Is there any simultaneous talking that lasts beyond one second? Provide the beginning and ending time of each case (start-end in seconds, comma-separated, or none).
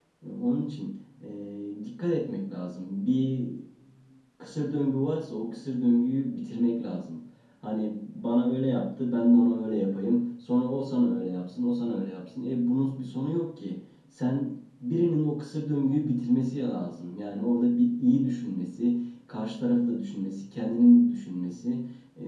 none